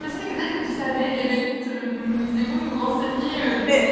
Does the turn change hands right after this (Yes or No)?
Yes